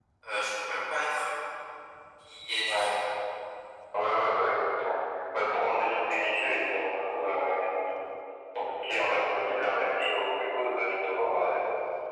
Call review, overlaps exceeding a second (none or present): none